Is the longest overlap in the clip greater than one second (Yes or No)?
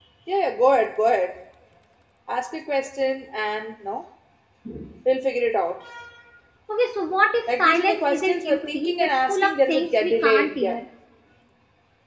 Yes